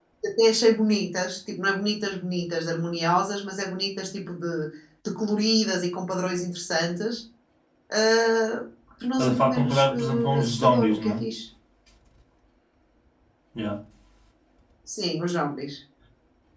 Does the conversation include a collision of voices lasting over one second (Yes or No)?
Yes